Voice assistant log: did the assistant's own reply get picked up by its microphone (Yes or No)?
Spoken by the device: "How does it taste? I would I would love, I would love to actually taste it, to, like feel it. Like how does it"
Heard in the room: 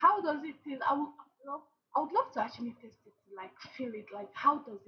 Yes